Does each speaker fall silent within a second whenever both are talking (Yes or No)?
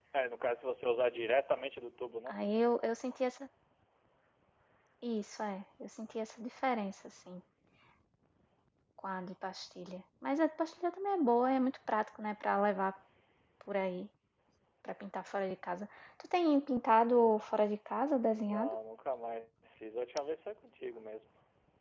Yes